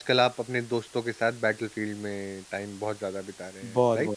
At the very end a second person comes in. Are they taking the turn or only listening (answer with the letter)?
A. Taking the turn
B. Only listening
A